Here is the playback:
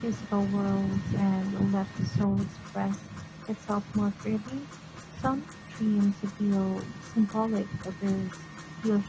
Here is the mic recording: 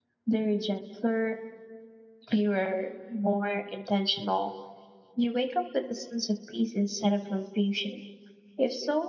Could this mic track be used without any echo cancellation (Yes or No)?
Yes